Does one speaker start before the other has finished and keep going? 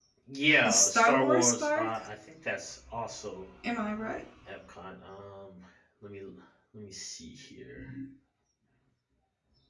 Yes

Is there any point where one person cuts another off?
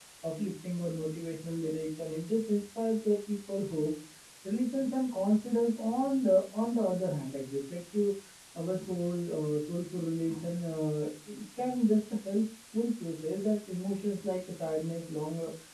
No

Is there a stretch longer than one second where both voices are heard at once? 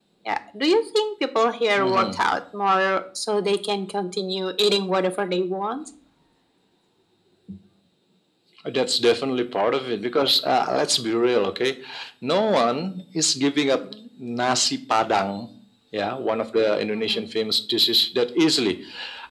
No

